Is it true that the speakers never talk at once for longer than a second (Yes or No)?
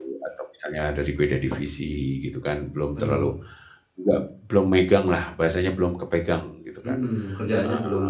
Yes